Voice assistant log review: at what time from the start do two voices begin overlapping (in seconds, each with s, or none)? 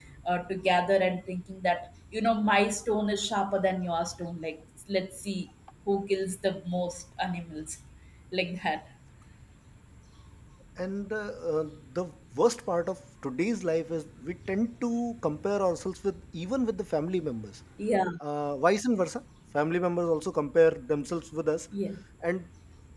none